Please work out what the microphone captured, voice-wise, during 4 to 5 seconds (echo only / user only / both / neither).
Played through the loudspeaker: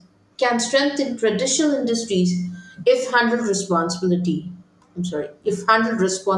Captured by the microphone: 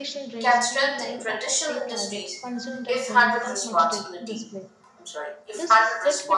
both